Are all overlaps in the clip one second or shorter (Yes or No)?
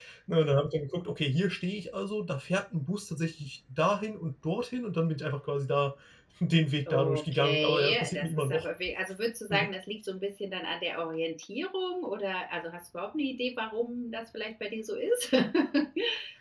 No